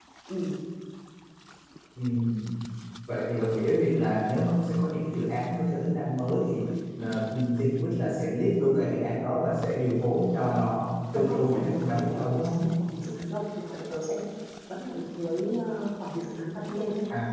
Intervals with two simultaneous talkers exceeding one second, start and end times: 11.2-12.6

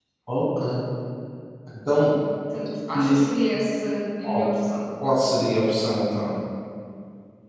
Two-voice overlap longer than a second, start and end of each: none

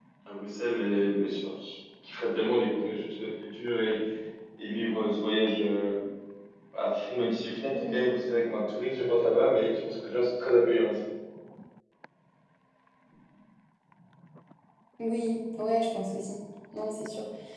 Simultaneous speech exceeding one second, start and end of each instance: none

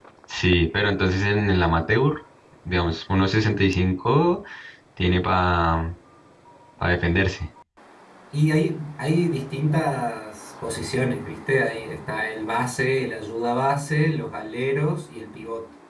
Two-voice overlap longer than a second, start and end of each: none

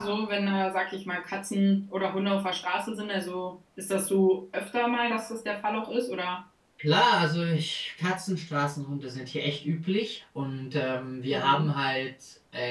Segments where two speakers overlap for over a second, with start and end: none

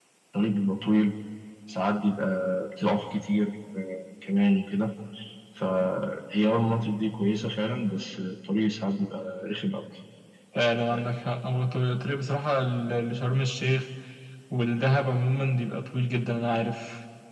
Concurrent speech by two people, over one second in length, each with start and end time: none

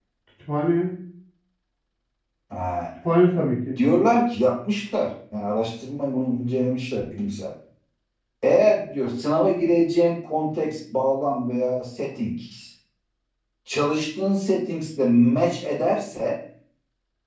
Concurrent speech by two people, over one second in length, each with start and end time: none

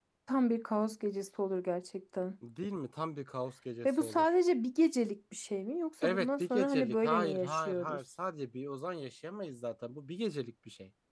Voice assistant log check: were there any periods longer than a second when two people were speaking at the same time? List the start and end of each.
6.0-8.0

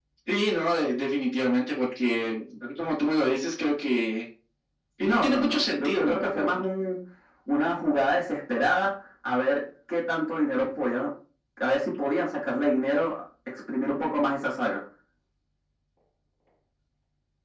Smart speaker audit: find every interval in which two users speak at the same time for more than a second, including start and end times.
5.0-6.6

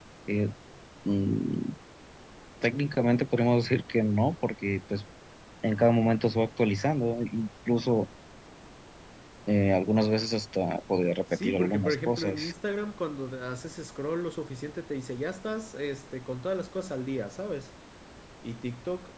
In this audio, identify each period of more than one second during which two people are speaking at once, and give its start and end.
11.3-12.5

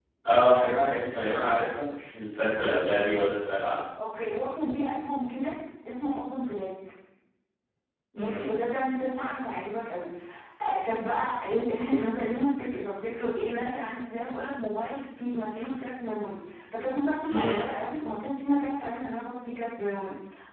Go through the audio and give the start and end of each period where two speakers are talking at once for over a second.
none

